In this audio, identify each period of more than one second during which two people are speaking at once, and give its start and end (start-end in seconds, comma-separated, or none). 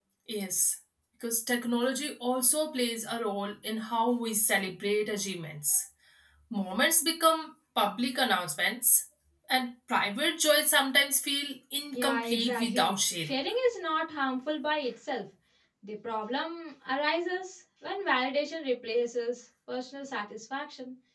11.9-13.3